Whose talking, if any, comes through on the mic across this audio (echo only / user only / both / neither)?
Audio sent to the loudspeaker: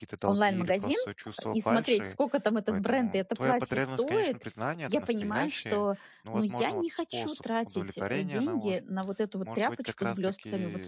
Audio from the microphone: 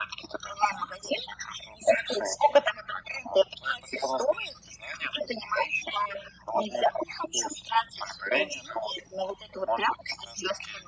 echo only